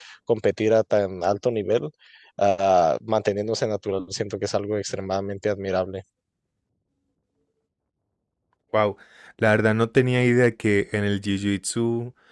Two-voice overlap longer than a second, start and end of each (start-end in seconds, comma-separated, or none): none